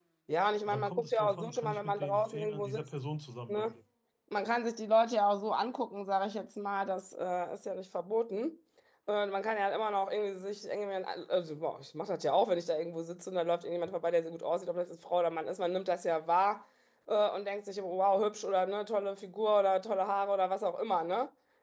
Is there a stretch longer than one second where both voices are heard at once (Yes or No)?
Yes